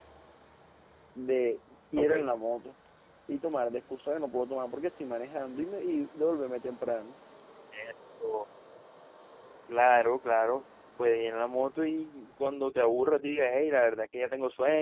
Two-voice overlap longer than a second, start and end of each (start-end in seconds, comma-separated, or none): none